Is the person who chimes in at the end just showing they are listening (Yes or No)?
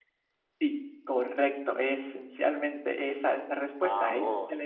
Yes